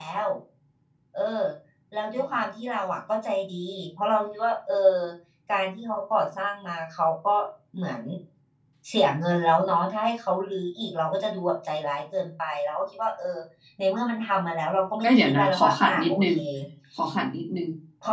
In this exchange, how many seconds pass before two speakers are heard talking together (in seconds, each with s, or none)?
15.0 s